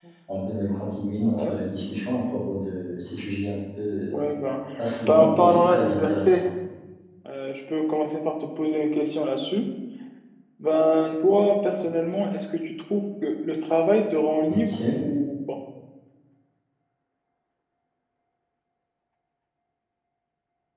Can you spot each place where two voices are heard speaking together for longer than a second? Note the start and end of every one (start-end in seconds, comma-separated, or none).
5.1-6.4